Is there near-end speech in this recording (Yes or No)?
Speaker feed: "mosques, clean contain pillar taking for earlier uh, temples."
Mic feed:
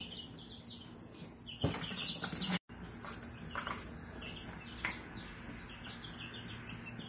No